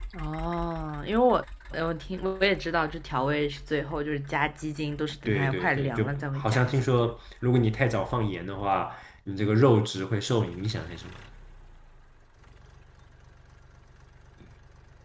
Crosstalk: present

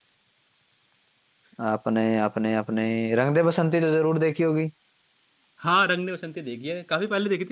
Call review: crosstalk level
none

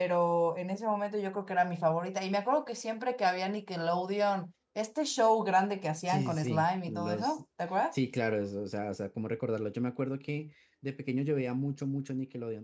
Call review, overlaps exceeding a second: present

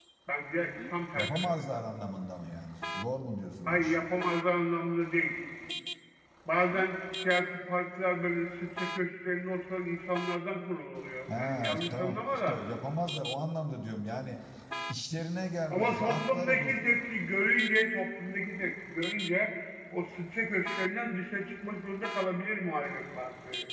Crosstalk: present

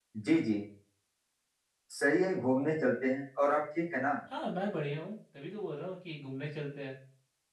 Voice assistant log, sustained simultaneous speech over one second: none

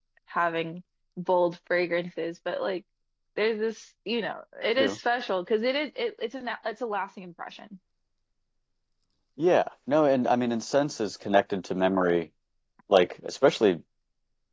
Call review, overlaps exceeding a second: none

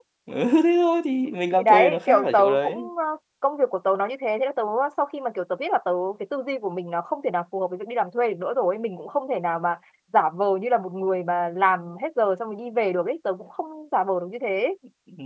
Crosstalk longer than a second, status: present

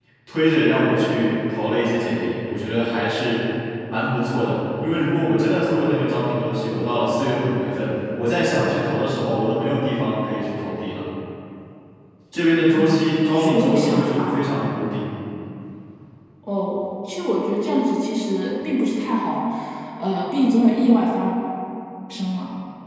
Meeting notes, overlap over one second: present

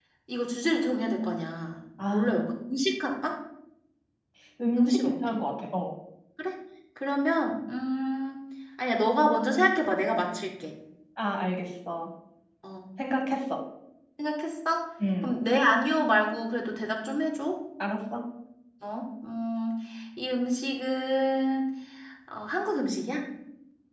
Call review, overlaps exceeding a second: none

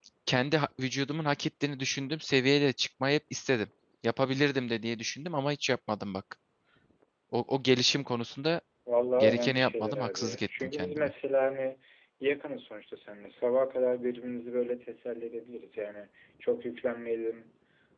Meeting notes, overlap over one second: present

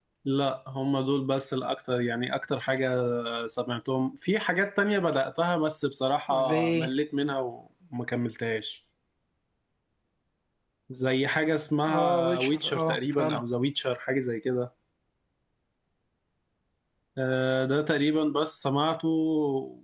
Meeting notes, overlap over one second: present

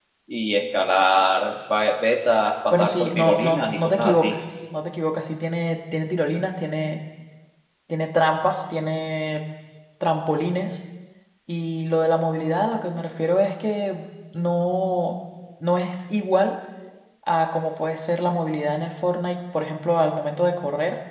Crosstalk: present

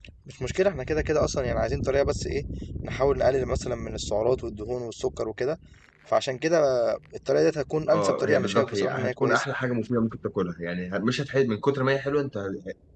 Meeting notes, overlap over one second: present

